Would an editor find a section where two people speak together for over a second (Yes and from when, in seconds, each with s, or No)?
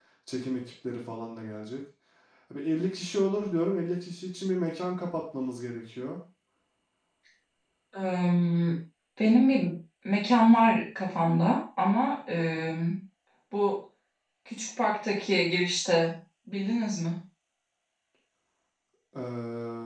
No